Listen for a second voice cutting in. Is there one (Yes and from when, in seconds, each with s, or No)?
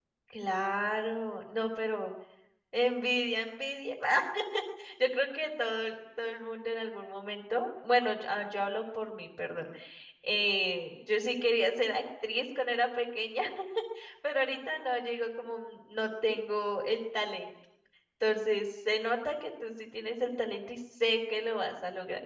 No